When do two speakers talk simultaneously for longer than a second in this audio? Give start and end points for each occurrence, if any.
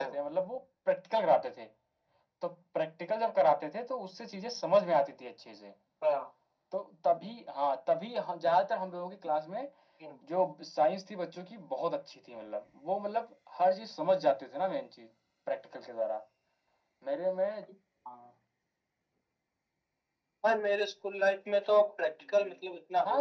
none

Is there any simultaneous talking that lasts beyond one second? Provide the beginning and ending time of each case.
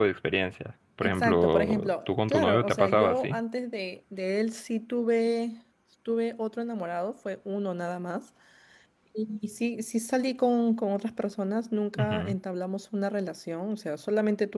1.0-3.4

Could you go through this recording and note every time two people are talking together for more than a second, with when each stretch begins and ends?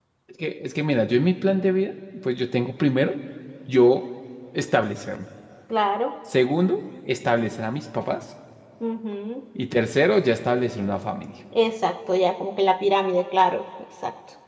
none

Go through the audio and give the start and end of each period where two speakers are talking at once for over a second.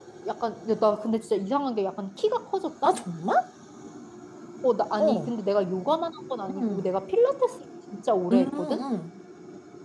none

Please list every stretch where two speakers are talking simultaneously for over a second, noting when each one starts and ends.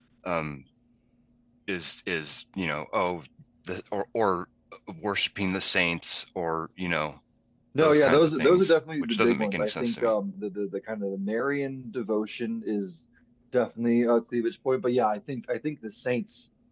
7.8-10.1

